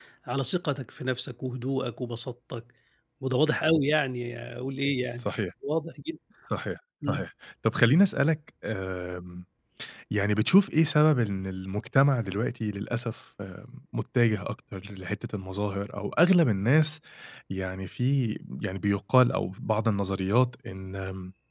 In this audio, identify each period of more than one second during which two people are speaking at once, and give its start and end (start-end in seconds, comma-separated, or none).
none